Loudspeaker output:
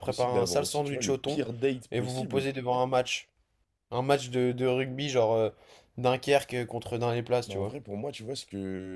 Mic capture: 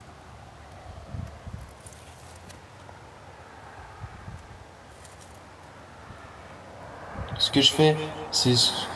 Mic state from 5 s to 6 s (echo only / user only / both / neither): neither